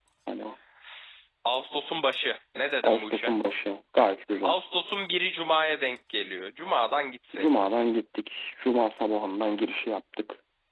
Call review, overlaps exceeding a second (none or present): none